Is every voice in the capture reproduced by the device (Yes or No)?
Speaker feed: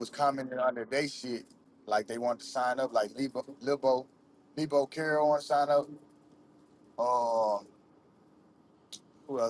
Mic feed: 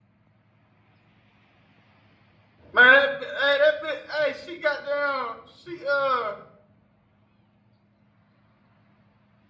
No